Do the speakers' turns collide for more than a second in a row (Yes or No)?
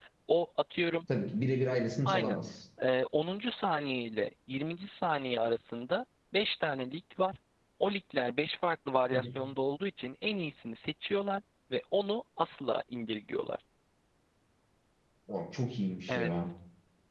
No